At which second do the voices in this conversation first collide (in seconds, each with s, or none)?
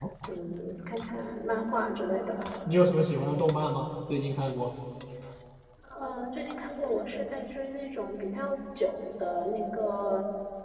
none